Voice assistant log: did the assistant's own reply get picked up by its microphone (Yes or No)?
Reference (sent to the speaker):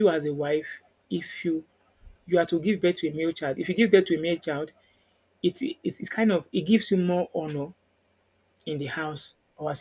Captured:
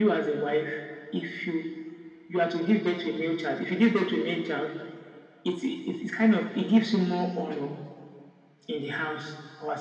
Yes